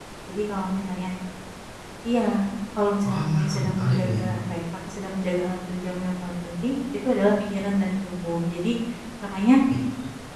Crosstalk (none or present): present